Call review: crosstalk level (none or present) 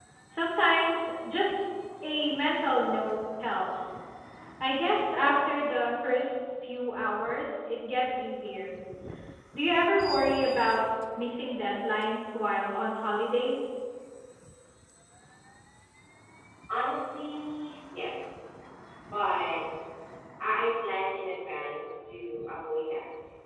none